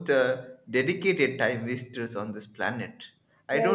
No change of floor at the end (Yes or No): Yes